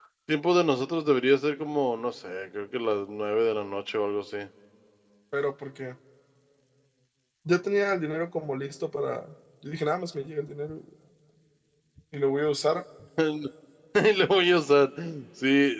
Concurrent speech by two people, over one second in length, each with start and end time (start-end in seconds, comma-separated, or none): none